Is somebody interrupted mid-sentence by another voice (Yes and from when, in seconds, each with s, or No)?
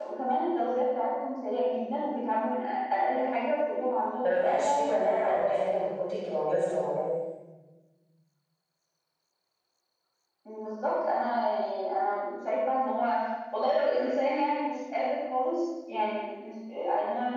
Yes, from 4.2 s